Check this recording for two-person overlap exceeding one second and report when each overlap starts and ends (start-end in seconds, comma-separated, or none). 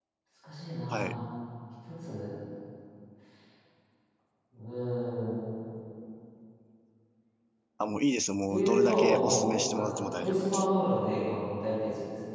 8.5-10.7